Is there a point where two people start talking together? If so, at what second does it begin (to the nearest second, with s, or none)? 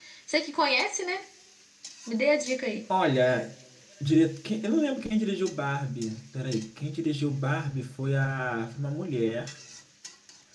none